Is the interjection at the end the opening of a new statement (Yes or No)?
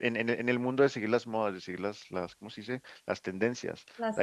No